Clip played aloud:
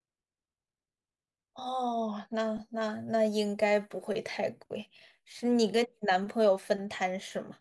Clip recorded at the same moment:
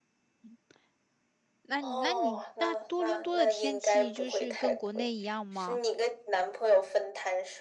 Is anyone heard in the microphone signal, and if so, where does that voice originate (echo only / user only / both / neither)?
both